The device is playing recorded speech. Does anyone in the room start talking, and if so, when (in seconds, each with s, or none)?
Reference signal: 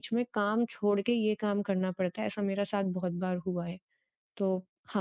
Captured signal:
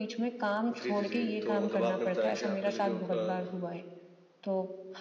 0.7 s